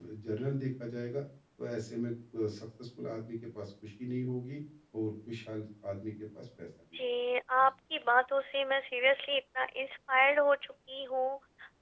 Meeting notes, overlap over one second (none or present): none